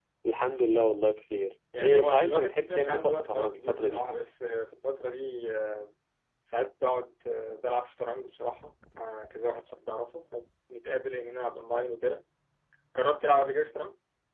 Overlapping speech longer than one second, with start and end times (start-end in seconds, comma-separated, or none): 1.8-4.0